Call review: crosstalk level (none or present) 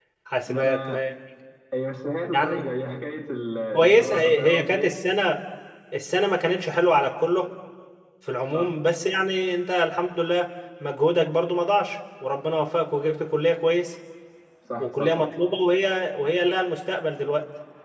present